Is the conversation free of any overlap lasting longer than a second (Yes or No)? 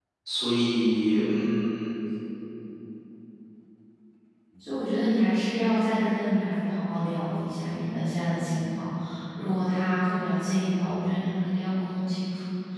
Yes